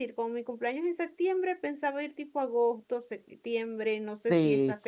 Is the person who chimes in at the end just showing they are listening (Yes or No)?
No